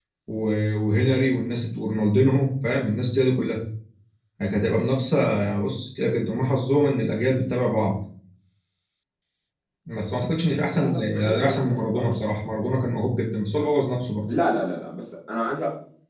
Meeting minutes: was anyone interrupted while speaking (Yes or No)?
Yes